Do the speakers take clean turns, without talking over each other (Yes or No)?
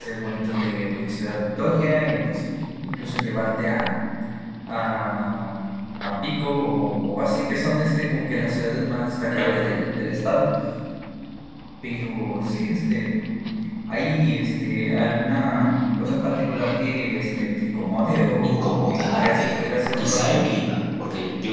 No